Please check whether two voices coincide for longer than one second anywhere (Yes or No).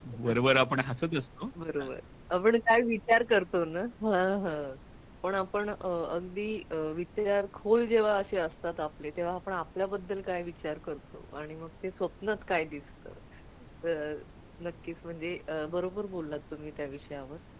No